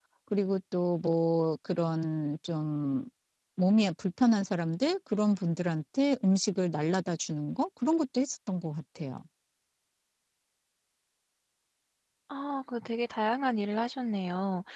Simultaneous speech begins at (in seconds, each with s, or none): none